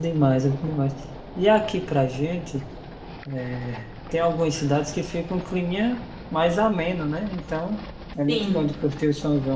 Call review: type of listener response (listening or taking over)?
listening